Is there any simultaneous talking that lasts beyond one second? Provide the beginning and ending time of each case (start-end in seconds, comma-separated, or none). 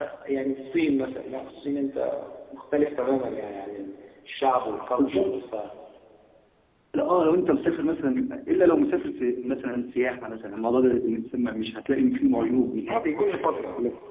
none